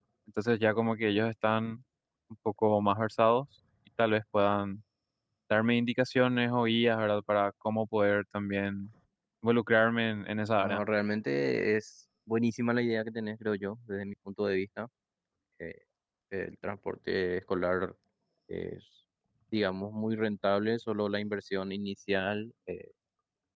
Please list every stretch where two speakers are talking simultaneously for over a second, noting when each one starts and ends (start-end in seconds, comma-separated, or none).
none